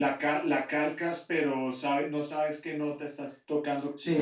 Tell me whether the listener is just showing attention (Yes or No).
No